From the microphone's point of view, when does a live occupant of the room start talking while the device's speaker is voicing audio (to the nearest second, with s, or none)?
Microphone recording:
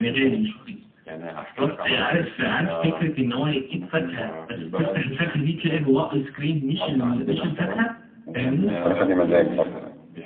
8 s